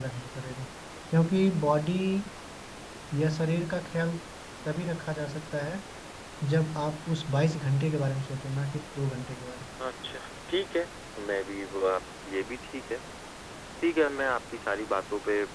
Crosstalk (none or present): none